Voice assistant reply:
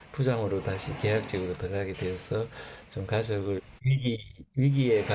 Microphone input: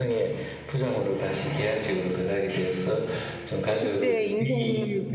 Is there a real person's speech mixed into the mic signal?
Yes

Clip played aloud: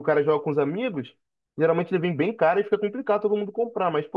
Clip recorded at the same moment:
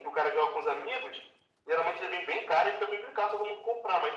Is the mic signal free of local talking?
Yes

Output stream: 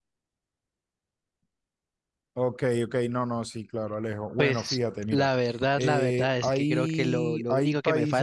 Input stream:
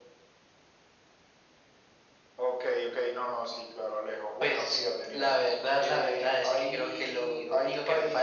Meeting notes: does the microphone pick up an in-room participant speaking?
No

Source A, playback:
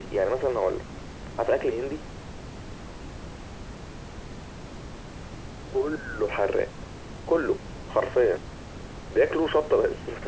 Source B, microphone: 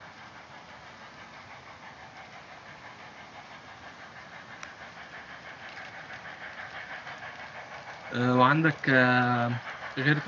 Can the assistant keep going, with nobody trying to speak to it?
No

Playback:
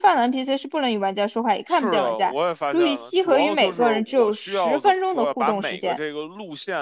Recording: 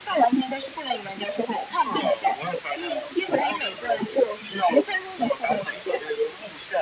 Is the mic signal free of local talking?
Yes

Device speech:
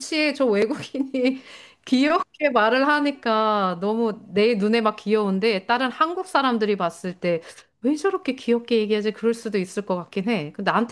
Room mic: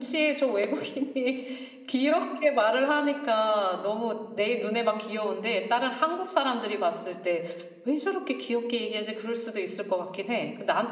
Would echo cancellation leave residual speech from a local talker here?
No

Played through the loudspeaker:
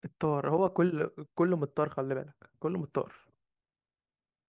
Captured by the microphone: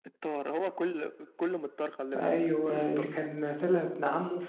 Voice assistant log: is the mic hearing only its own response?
No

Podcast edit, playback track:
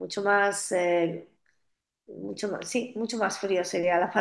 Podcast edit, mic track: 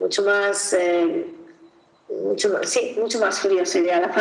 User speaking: No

